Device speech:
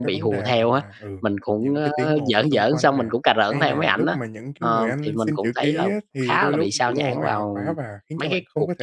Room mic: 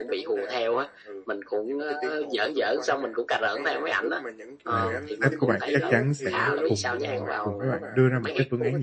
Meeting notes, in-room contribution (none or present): present